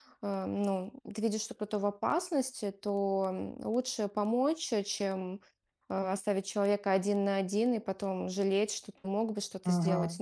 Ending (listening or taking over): listening